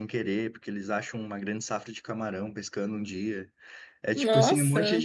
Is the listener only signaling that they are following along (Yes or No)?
Yes